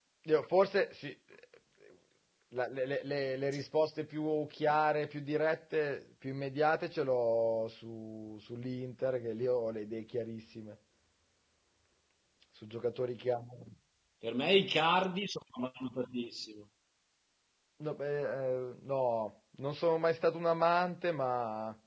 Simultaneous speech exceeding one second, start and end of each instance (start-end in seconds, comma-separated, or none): none